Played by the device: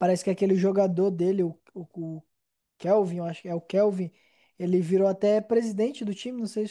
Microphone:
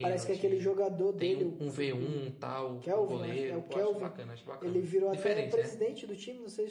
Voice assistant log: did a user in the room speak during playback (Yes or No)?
Yes